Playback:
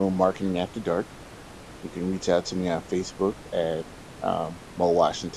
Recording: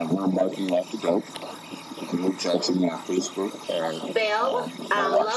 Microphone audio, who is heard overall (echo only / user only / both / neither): both